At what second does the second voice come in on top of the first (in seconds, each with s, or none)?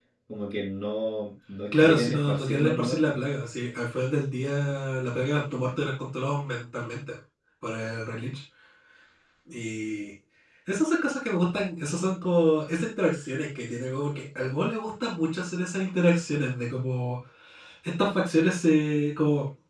1.7 s